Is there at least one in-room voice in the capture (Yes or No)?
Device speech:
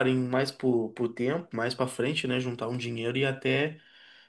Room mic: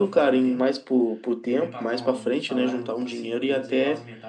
Yes